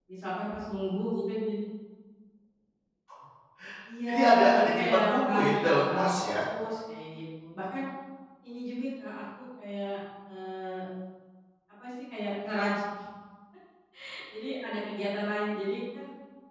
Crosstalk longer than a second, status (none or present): present